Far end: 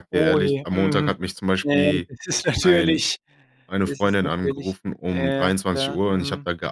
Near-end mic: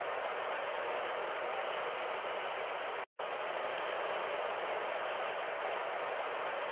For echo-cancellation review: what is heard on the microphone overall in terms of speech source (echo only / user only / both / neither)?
neither